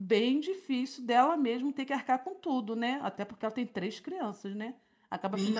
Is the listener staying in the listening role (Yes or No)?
No